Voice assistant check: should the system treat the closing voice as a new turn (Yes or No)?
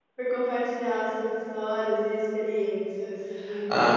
Yes